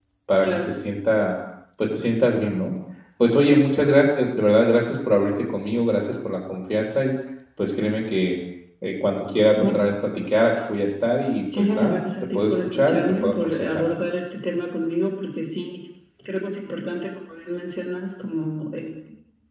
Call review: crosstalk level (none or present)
present